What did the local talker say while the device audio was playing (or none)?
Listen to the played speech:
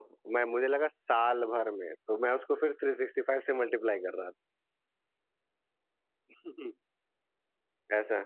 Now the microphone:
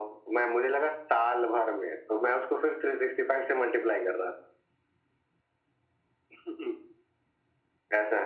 none